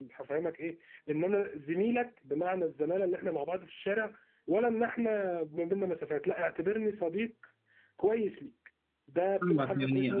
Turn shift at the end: Yes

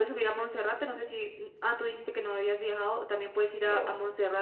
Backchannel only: Yes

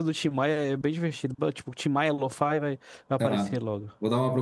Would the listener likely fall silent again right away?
No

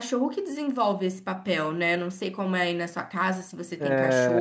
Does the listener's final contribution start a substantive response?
Yes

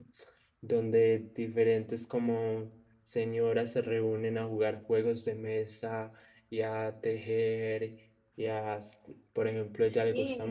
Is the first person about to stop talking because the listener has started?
No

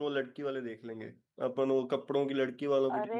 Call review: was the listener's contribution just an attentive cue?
No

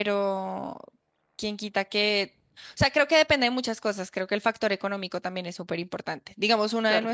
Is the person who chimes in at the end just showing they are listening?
Yes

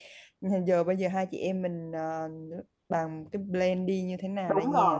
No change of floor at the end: No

